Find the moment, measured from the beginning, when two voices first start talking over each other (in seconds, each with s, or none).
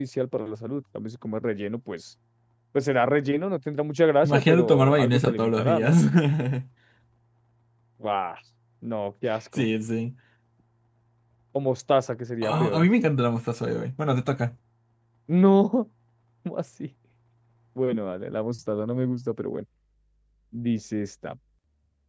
4.2 s